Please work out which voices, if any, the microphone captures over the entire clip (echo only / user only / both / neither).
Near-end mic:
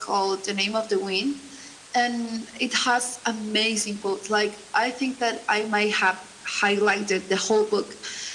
echo only